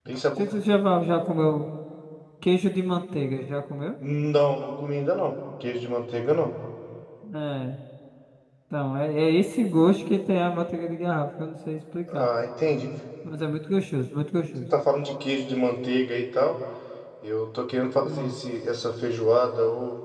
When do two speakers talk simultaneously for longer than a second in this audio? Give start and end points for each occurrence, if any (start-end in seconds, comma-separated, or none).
none